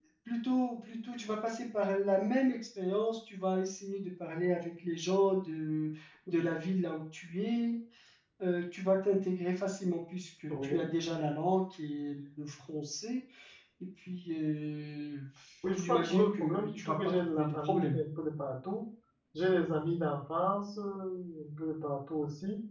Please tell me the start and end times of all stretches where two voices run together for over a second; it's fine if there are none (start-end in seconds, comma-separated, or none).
15.7-18.0